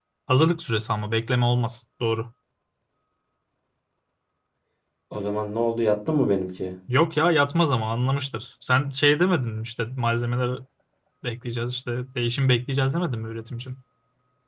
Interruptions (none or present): none